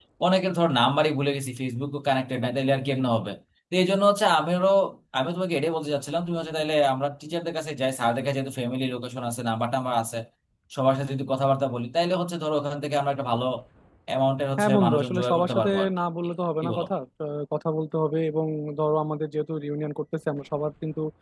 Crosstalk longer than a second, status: present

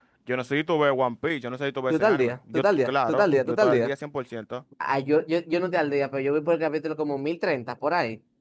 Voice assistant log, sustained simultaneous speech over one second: present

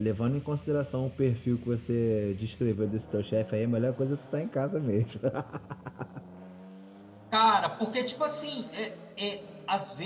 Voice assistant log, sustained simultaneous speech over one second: none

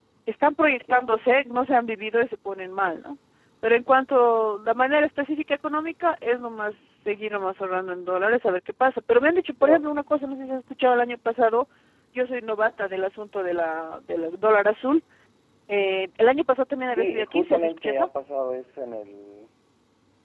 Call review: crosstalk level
present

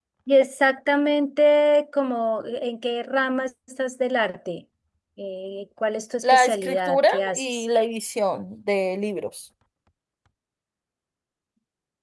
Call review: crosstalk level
present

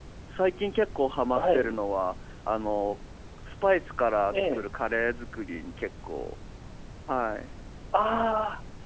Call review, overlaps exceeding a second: none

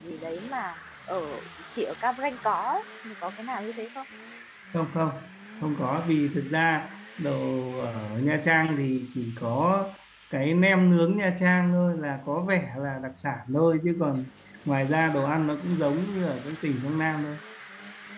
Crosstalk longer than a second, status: none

